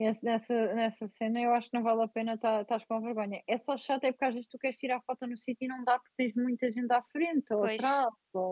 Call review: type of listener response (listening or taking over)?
listening